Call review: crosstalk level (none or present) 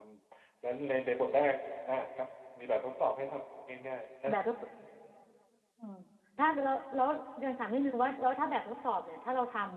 none